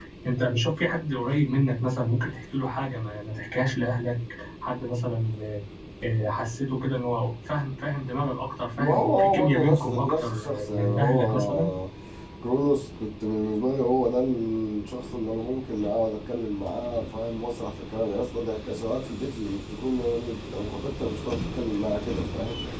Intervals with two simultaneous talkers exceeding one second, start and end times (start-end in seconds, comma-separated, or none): 8.8-11.7